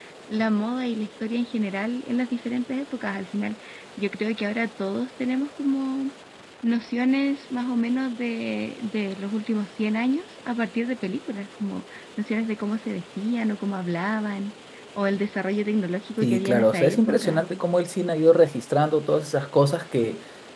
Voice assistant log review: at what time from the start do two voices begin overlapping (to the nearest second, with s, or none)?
16 s